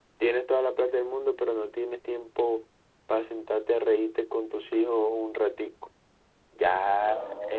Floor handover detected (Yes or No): No